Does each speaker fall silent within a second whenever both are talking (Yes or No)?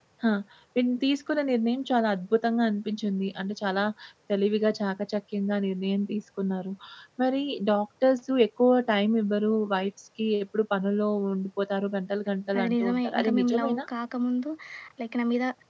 No